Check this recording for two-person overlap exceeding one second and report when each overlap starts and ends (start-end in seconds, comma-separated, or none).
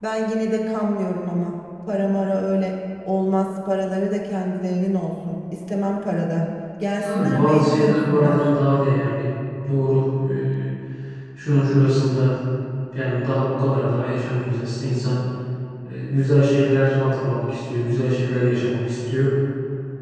7.0-8.4